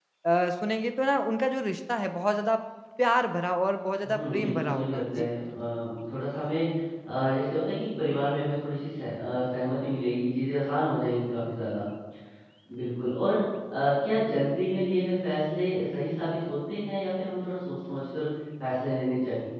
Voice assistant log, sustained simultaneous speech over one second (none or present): present